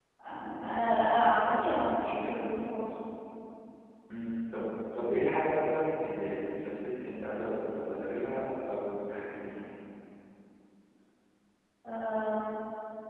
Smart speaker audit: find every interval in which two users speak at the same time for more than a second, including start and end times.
none

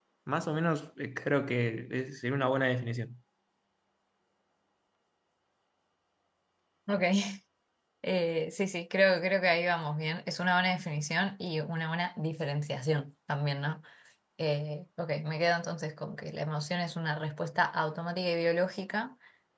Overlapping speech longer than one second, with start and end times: none

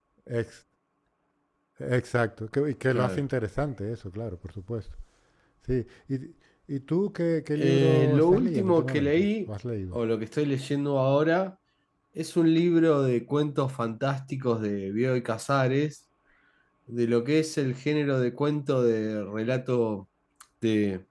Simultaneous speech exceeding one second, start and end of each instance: 7.5-9.5

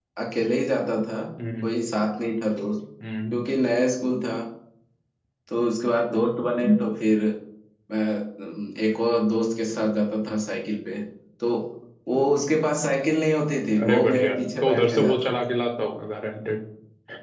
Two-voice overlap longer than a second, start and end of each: 13.8-15.3

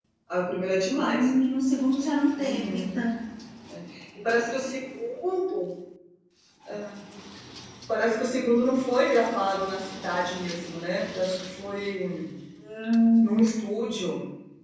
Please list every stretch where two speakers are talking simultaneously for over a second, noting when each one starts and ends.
none

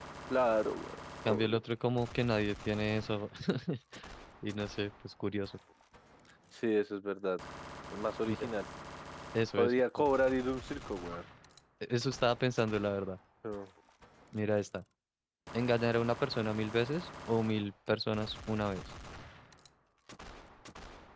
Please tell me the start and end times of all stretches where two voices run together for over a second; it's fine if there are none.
none

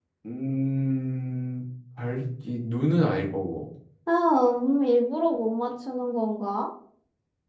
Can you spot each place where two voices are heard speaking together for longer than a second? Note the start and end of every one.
none

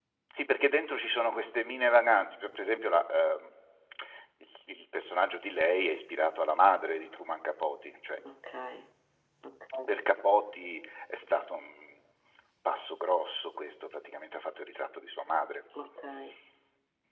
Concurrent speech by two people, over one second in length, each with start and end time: none

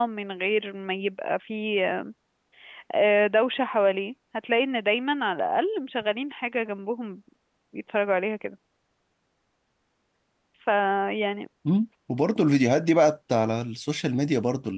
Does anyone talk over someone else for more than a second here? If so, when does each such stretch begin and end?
none

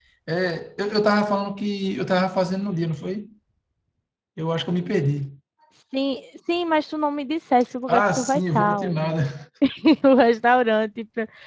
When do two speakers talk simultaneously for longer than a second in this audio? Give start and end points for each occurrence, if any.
7.9-9.2

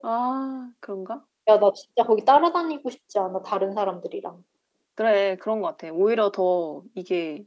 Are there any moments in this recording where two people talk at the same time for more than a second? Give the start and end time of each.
none

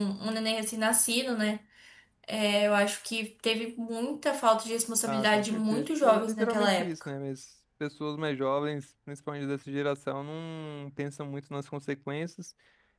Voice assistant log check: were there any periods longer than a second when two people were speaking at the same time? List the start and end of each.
5.0-6.9

